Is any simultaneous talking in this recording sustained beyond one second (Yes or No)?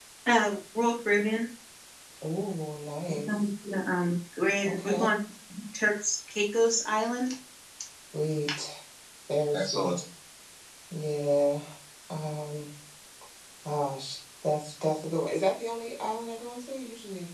No